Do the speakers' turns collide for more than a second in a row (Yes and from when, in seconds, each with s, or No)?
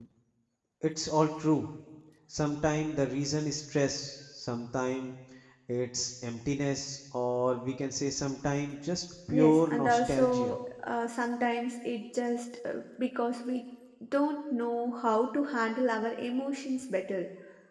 Yes, from 9.3 s